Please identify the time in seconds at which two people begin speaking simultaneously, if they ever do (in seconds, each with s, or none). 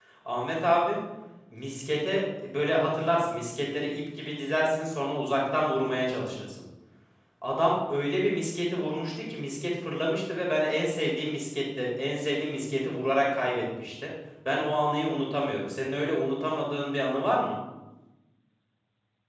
none